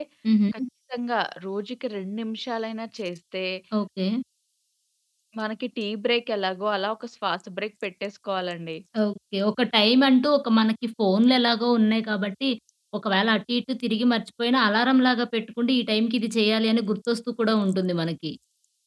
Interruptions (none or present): none